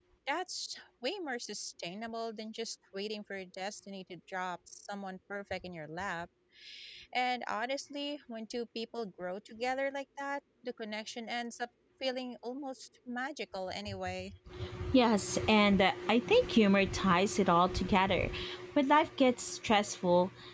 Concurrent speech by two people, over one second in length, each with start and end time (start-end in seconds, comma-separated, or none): none